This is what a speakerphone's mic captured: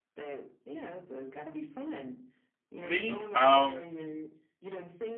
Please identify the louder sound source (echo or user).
user